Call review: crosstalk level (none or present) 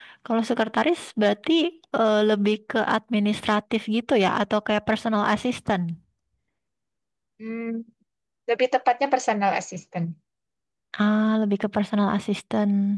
none